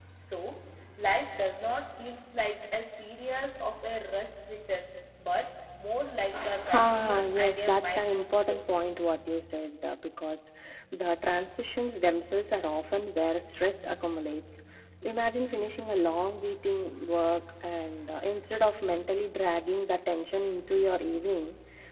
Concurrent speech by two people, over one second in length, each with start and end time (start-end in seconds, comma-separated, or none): 6.7-8.6